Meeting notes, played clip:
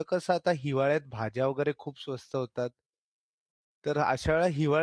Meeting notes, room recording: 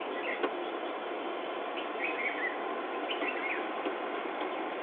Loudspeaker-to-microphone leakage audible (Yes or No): No